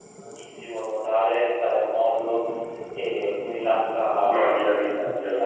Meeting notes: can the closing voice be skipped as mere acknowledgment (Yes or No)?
No